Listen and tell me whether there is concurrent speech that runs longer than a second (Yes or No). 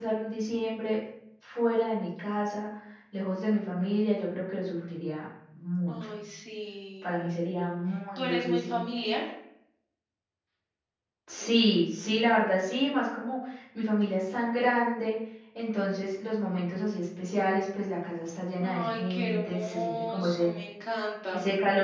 Yes